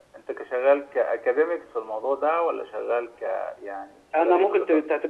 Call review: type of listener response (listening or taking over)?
taking over